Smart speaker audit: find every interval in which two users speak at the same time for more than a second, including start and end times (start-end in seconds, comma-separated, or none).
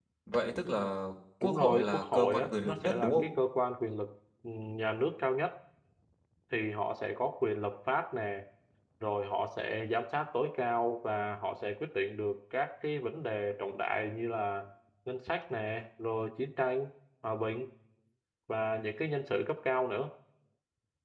1.4-3.3